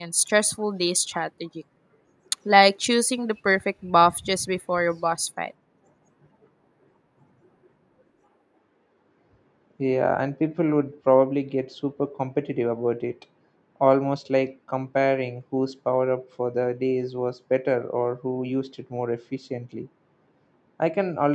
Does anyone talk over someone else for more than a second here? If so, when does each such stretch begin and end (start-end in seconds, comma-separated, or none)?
none